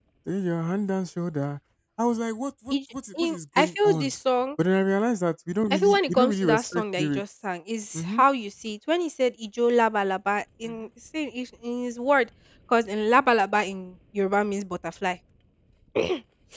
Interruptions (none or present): present